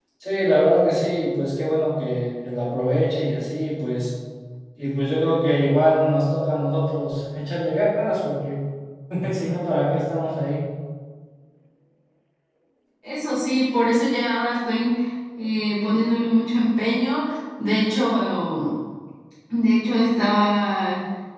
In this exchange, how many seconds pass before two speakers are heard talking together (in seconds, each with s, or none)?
none